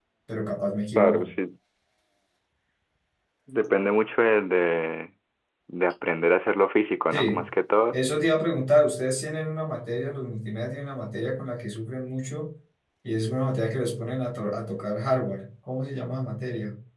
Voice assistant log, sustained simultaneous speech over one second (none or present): none